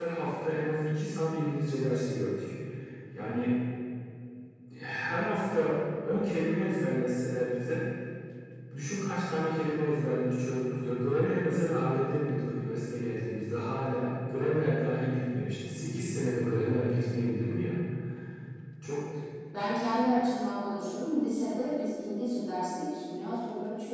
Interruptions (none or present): none